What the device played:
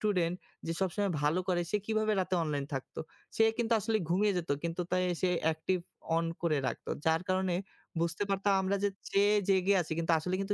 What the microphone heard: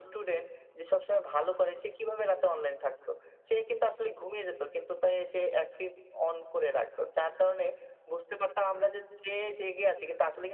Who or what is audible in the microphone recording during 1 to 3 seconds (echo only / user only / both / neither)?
echo only